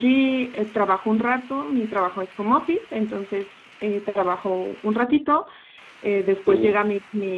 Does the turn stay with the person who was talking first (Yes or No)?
Yes